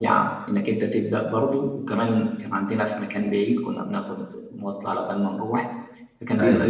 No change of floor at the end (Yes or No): Yes